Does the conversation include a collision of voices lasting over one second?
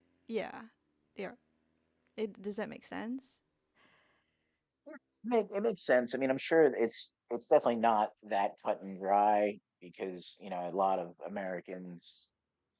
No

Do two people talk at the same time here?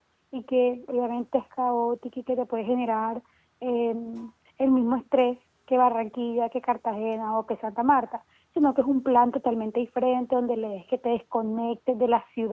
No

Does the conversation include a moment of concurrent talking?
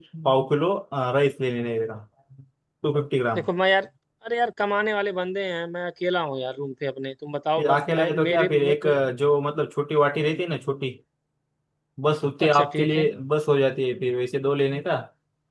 Yes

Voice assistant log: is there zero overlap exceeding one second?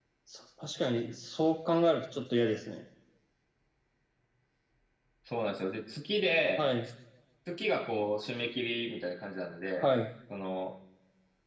Yes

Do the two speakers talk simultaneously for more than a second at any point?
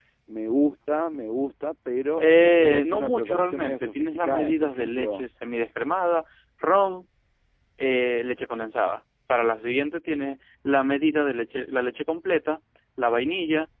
Yes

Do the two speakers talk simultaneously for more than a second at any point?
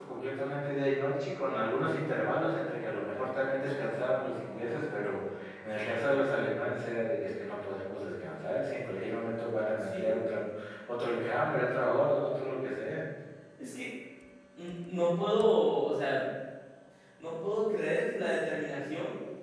No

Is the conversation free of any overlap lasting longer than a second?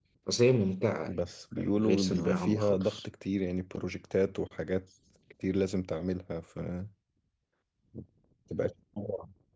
No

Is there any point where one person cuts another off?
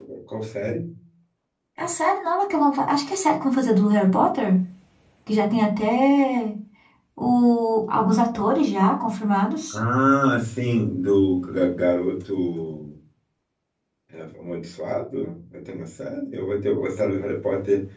No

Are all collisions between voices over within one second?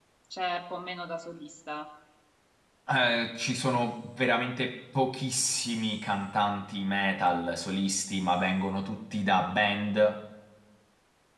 Yes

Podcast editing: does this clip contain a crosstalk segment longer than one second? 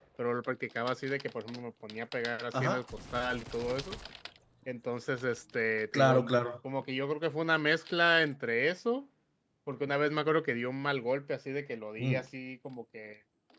No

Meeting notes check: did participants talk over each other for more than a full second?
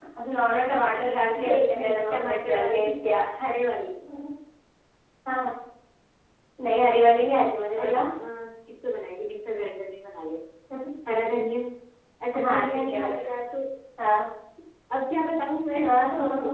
Yes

